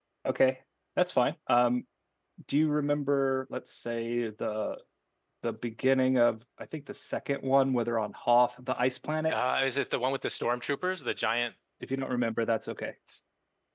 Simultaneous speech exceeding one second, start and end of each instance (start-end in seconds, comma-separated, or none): none